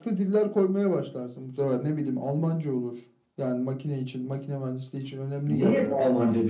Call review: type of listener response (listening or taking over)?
taking over